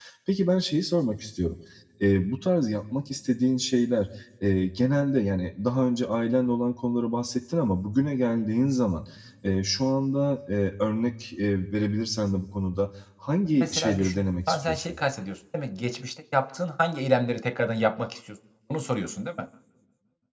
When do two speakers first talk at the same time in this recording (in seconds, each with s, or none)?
13.6 s